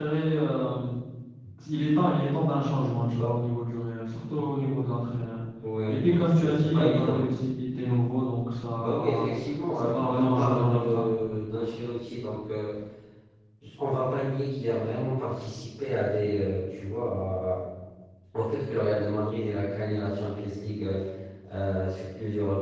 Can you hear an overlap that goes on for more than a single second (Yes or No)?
Yes